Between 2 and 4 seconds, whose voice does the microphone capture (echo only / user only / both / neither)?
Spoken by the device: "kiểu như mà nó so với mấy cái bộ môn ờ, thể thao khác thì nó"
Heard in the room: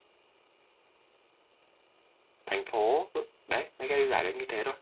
user only